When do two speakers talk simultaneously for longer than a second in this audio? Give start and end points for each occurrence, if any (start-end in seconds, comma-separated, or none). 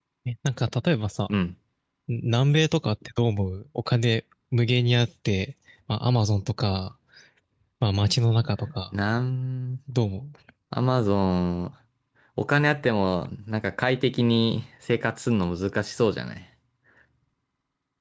none